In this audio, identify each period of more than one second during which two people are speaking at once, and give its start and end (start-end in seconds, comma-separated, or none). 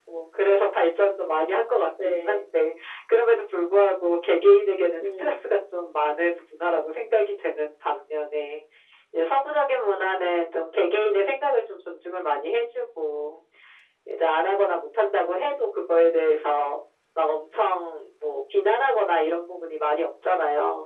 none